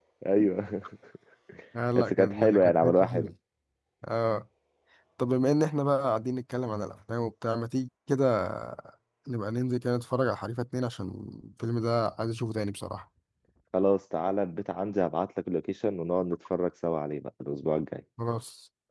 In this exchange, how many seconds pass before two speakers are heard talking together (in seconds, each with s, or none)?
1.9 s